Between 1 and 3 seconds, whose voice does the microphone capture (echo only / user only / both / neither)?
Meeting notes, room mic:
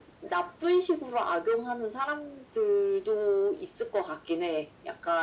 echo only